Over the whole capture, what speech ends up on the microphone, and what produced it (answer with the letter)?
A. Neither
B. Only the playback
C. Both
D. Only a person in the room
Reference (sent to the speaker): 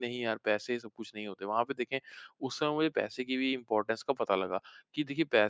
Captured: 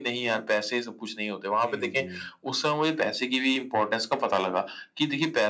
C